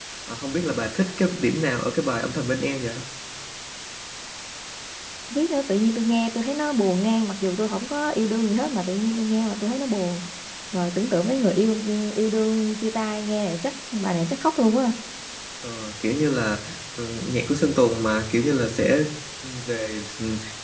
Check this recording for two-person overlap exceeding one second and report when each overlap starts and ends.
none

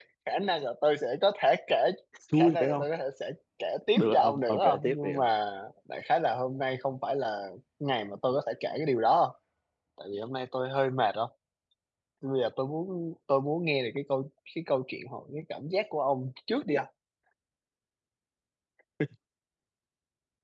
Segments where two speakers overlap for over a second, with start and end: 4.0-5.2

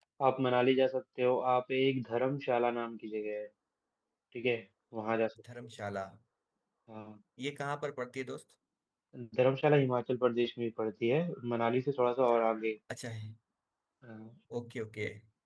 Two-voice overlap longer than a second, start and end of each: none

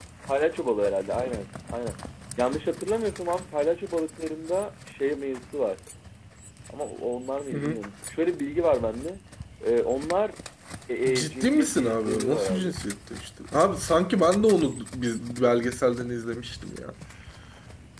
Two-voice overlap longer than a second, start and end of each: 11.1-12.7

